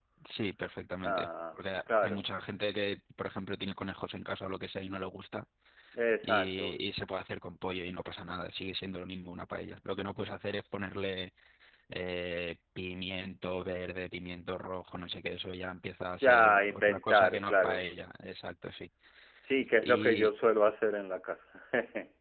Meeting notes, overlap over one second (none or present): present